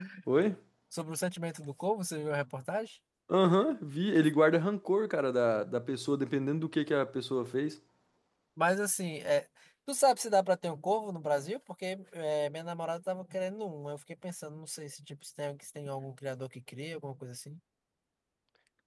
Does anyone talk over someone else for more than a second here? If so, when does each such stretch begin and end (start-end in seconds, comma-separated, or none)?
none